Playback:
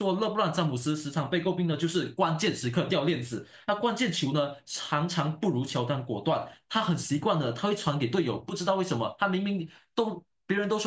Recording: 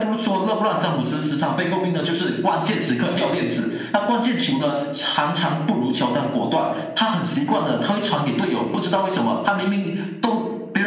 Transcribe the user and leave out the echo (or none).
none